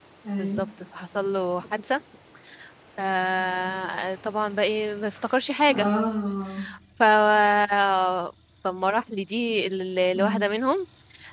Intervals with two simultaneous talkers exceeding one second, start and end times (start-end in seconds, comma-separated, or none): none